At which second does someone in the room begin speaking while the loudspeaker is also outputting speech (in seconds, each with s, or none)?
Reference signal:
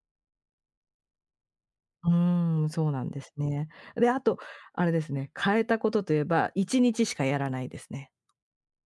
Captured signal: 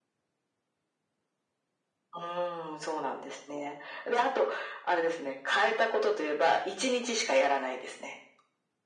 none